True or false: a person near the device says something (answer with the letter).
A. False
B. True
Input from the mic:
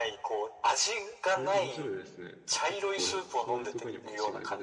B